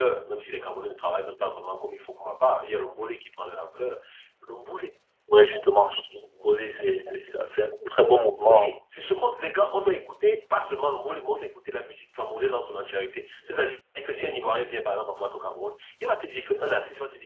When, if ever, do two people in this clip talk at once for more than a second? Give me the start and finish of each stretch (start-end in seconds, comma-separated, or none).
none